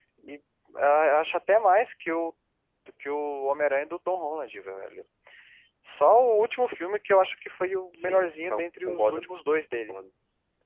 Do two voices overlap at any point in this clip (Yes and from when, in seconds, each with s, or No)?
Yes, from 8.0 s